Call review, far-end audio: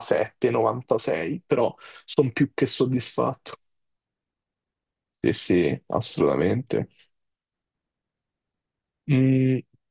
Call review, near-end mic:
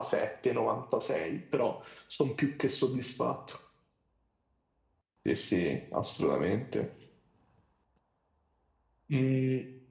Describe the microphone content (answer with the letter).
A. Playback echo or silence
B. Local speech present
A